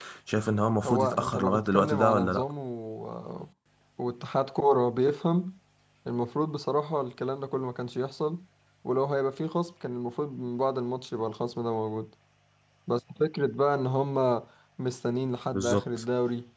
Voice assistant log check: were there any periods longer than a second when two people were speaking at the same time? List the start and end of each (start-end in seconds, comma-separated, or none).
0.8-2.4